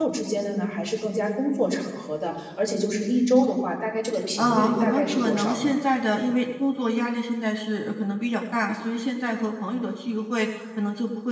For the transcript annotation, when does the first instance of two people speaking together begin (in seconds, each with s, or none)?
4.4 s